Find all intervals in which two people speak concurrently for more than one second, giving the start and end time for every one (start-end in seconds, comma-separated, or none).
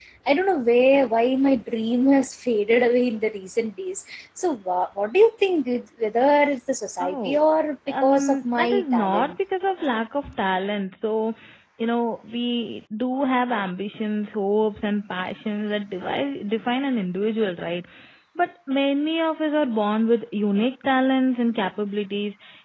8.0-9.3